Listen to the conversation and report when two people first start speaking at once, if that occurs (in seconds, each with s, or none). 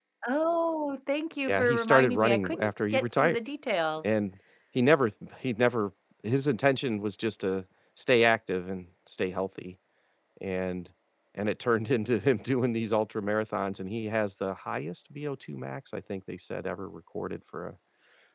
1.5 s